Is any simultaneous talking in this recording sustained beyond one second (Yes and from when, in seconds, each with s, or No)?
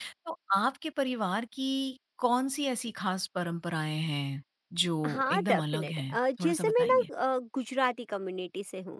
Yes, from 5.0 s